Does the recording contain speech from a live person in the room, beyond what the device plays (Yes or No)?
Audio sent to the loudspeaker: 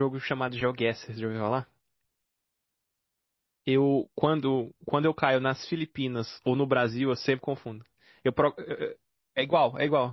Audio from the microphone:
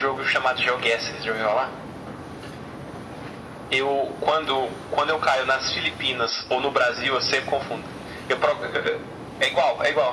No